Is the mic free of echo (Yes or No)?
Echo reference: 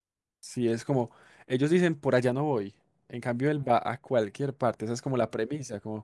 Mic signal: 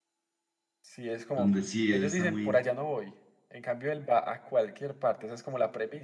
No